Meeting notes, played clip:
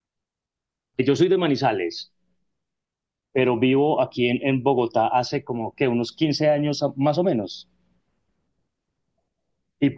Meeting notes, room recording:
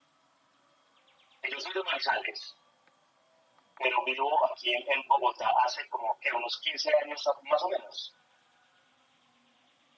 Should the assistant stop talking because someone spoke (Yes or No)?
No